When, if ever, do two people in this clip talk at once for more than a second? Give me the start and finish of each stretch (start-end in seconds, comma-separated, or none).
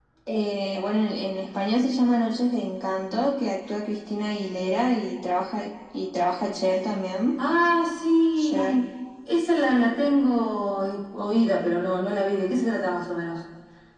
none